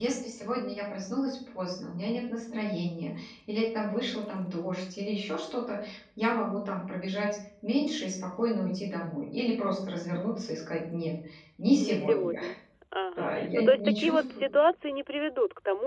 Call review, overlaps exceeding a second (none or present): present